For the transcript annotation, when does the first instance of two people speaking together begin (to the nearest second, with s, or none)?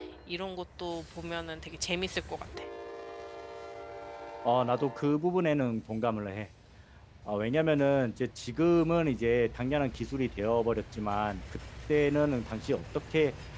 none